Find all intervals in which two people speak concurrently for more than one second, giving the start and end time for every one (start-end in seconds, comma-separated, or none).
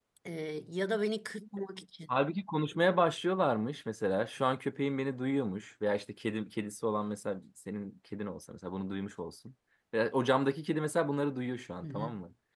none